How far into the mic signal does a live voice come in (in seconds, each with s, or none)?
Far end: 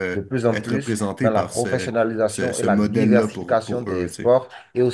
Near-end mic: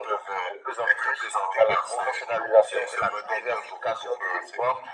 none